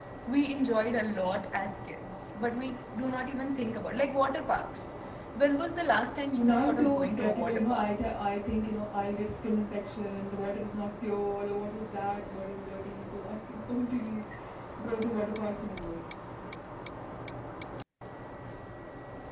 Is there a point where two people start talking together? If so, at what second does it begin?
6 s

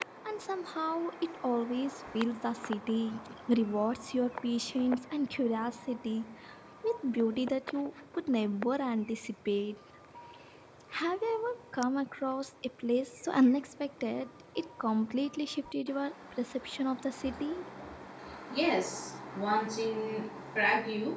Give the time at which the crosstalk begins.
none

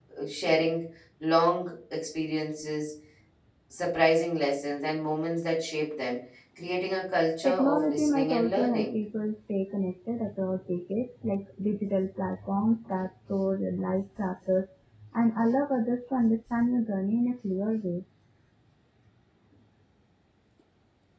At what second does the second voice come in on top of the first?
7 s

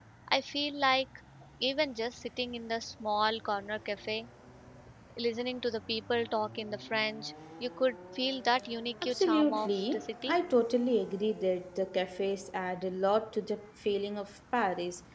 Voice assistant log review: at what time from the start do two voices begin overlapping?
9 s

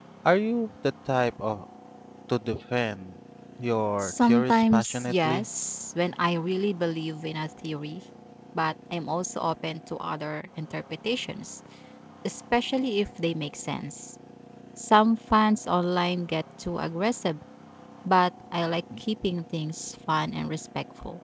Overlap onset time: 4 s

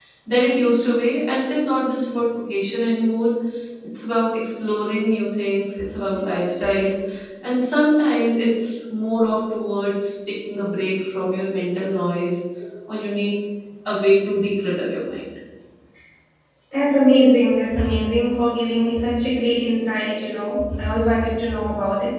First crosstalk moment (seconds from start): none

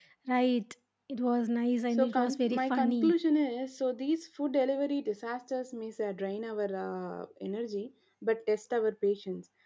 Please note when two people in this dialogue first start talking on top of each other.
2 s

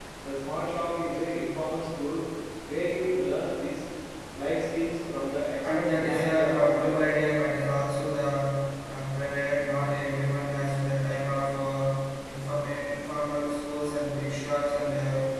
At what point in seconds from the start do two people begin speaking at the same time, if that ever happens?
6 s

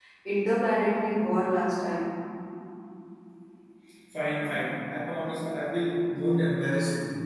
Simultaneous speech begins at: none

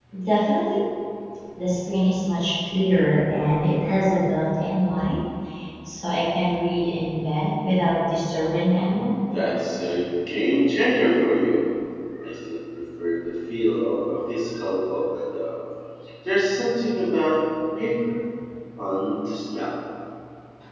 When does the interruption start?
none

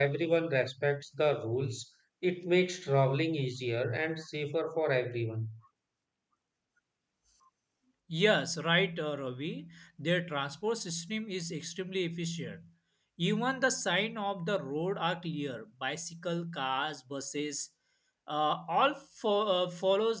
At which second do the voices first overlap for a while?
none

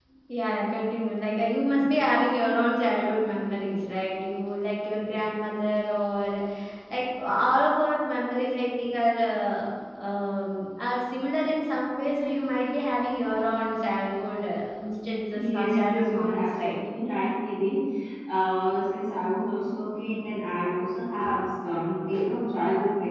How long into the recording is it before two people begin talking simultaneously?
15 s

